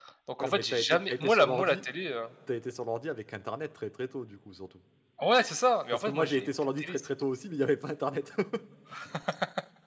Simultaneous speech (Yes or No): Yes